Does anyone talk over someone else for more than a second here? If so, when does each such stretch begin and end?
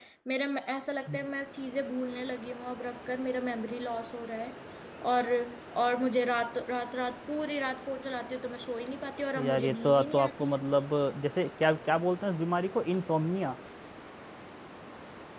9.3-10.6

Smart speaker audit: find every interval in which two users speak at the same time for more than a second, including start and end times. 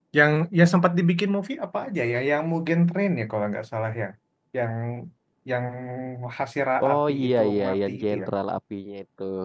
6.8-8.3

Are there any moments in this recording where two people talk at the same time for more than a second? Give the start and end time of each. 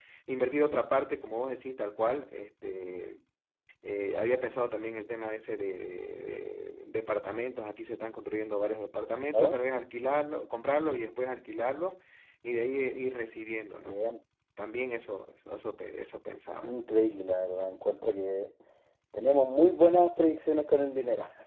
none

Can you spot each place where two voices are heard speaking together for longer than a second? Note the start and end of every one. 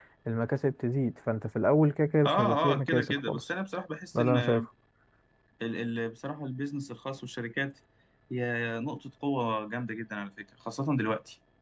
2.2-3.5

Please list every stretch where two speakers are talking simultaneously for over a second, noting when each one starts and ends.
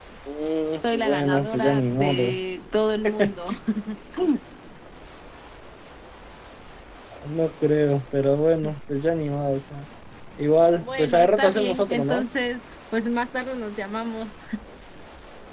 0.8-2.4, 10.8-12.2

